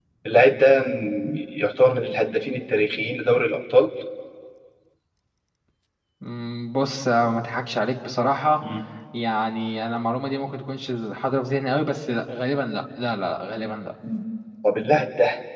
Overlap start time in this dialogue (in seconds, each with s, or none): none